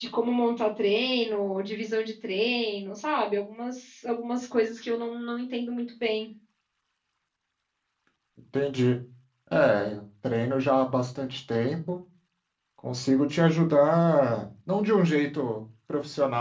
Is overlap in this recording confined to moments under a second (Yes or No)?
Yes